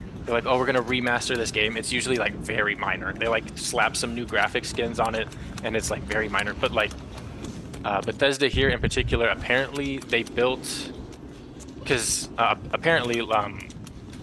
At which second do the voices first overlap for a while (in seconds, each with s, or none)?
none